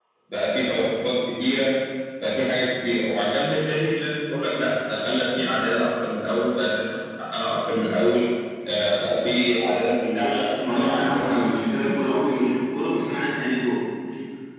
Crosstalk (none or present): present